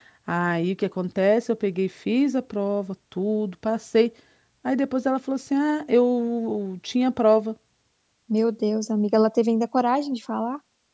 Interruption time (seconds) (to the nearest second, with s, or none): none